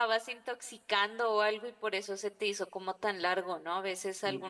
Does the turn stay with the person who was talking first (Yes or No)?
Yes